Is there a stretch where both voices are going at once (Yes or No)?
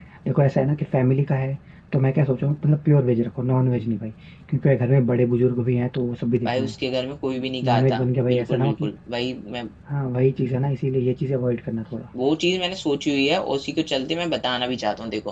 Yes